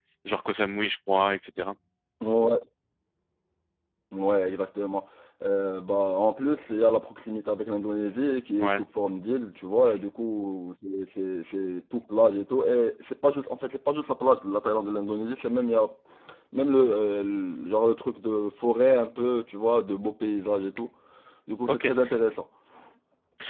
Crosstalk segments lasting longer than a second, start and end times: none

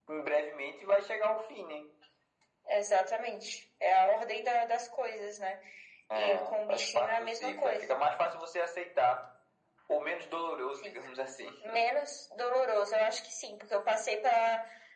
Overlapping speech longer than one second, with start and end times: 6.2-7.9

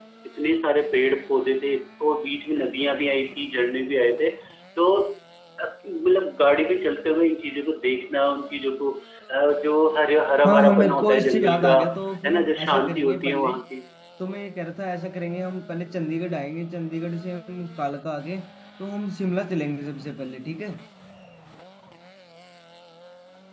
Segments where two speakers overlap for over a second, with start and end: 10.4-11.8, 12.2-13.5

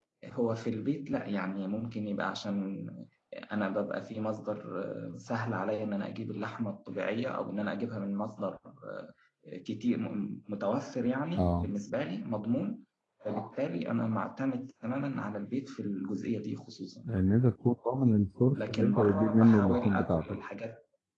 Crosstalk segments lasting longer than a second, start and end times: 18.5-20.4

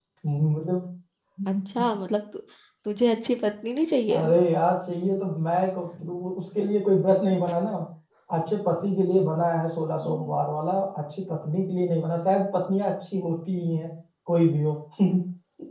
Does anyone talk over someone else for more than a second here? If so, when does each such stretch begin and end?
none

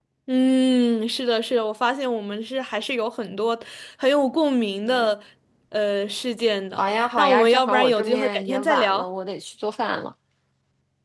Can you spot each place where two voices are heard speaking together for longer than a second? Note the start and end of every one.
6.8-9.0

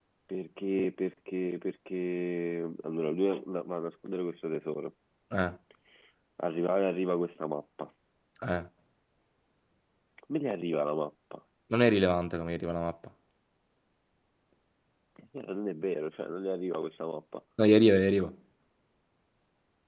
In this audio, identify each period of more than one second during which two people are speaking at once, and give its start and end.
none

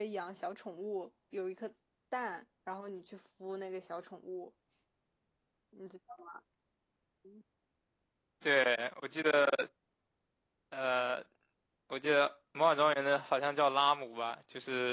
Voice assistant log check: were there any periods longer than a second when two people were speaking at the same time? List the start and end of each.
none

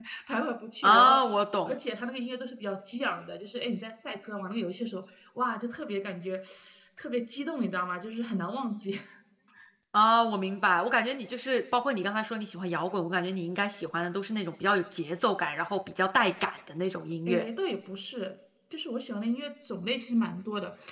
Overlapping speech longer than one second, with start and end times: none

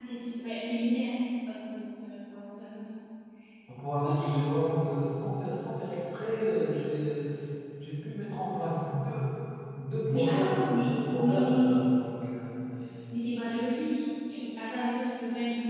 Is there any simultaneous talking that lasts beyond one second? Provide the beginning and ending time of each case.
10.1-11.8

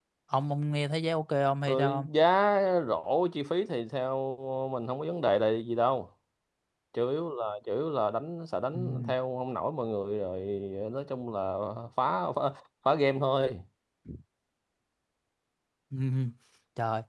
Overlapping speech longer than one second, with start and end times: none

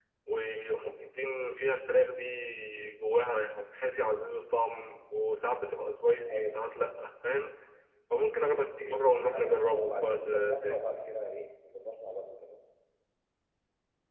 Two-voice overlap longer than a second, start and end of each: 9.3-10.8

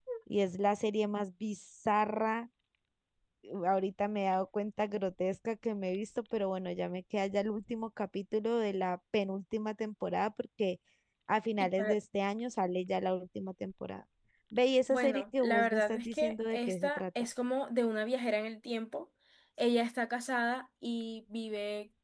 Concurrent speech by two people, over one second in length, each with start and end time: 14.9-17.0

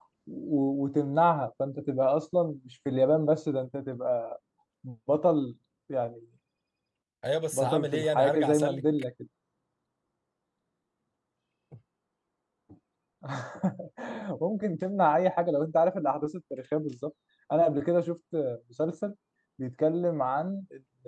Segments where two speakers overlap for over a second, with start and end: 7.5-8.8

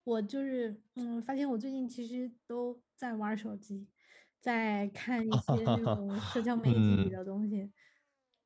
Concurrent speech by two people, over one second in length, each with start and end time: 5.3-7.2

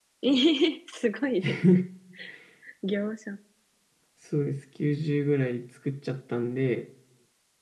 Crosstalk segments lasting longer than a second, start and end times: none

